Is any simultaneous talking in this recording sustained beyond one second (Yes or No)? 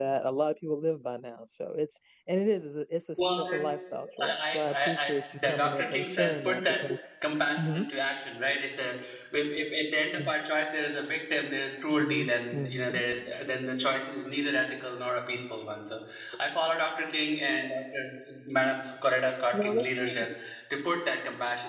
Yes